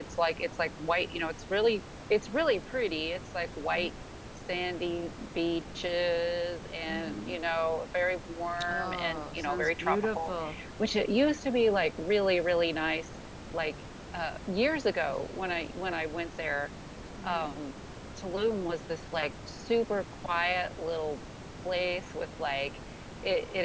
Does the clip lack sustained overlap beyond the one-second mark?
No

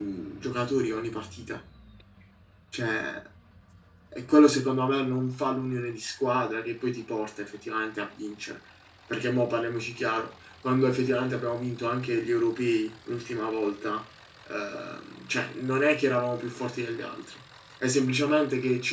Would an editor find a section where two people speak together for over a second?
No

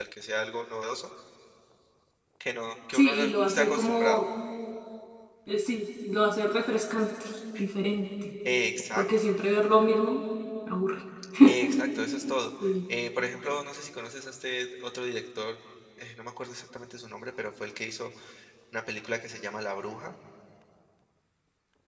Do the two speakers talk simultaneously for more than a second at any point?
Yes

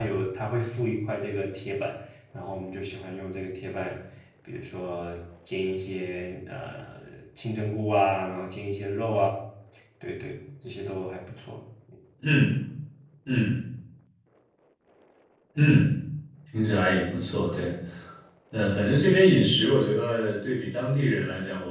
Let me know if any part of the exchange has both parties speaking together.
No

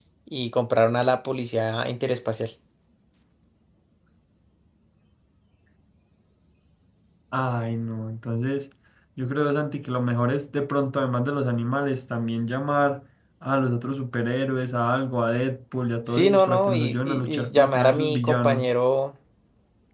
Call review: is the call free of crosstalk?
No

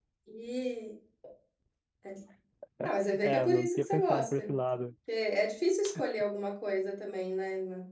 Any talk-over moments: Yes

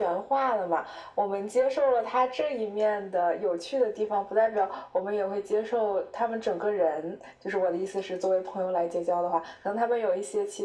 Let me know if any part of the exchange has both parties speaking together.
No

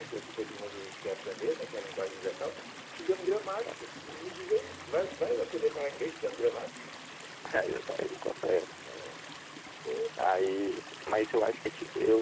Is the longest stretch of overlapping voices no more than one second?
Yes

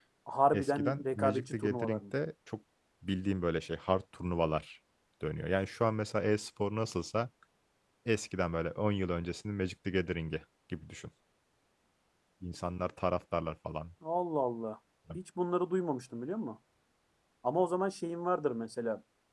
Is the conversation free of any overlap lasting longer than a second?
No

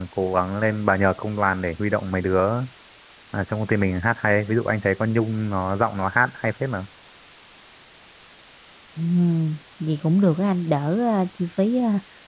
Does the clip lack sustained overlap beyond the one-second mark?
Yes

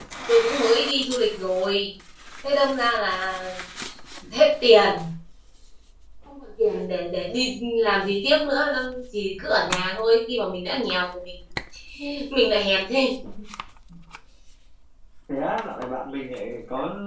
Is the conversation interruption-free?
Yes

